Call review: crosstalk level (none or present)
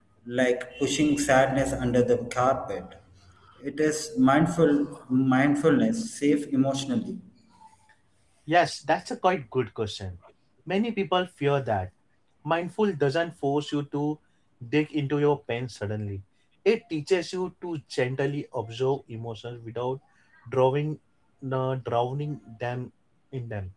none